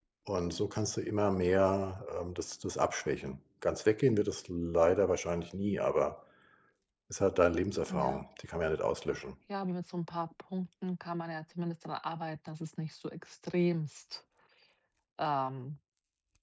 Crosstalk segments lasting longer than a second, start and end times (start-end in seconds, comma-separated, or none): none